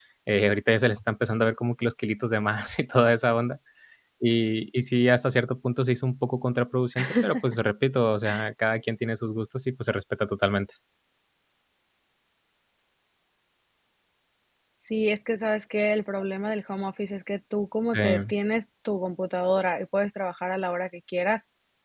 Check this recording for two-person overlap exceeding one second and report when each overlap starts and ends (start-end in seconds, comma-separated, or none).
none